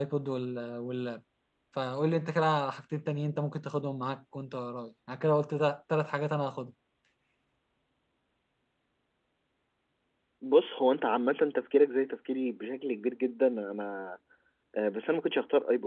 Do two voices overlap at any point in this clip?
No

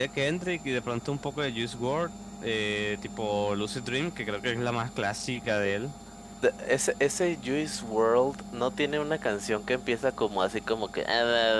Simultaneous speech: No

